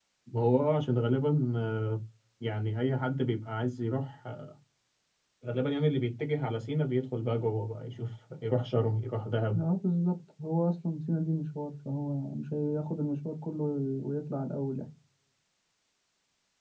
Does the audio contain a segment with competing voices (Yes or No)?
No